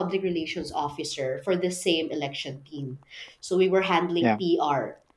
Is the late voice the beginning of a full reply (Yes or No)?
No